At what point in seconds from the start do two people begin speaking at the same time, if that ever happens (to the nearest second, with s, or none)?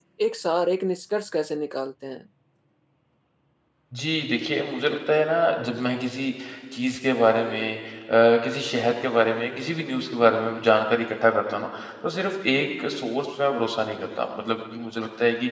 none